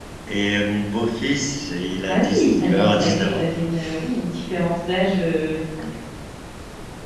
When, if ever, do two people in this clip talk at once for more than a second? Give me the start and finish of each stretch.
2.1-3.4

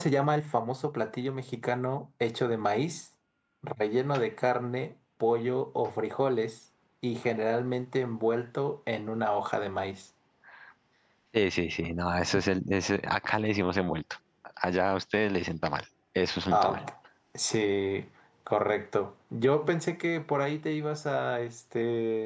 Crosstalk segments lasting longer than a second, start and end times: none

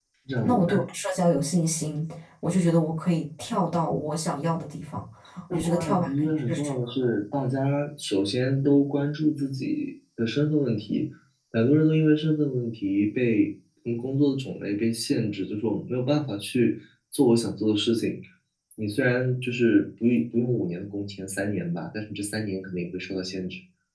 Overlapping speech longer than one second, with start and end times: 5.5-6.9

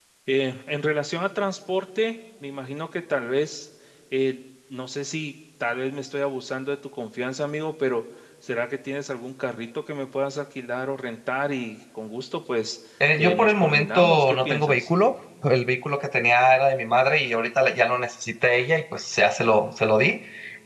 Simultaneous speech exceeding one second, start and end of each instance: 13.2-14.9

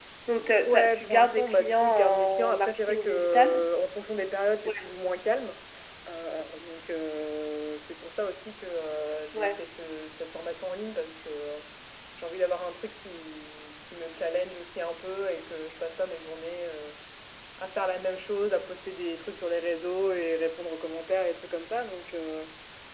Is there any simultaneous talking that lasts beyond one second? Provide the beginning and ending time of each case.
0.6-3.6

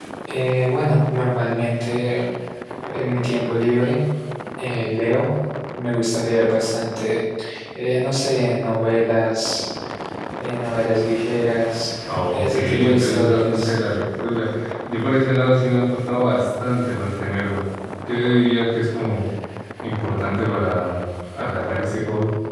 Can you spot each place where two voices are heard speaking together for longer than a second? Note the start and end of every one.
12.3-13.7

